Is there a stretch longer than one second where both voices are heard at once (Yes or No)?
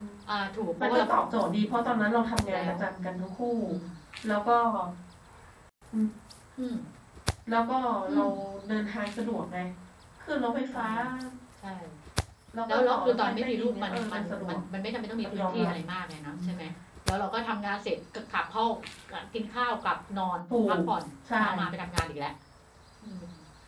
Yes